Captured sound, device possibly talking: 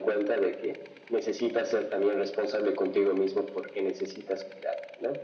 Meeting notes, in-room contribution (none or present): none